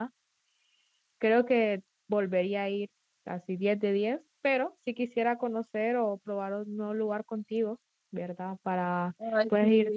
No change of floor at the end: Yes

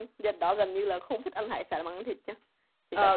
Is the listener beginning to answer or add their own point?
Yes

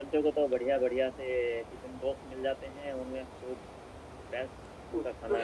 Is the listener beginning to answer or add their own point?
Yes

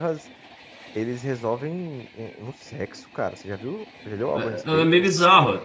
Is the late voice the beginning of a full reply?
Yes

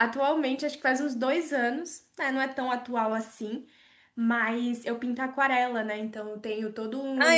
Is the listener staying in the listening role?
No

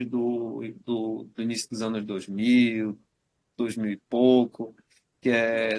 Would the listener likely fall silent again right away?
Yes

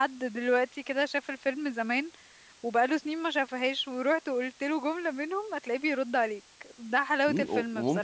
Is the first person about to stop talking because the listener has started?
Yes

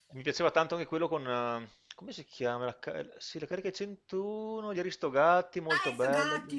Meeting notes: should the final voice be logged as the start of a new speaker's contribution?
Yes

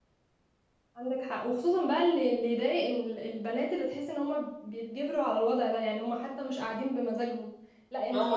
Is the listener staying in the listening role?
No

